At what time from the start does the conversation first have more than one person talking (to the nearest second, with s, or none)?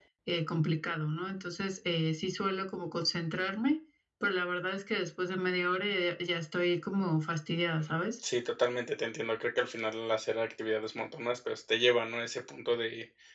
none